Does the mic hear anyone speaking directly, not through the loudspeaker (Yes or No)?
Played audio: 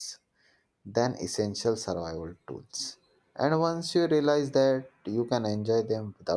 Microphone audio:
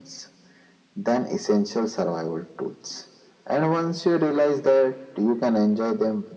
No